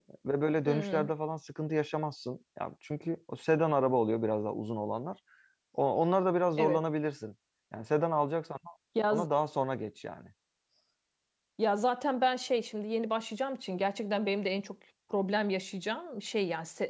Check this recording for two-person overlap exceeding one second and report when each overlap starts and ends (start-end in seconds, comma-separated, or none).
none